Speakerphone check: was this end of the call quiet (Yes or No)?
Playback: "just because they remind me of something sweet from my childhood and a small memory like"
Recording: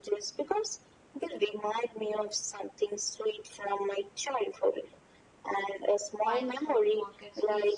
No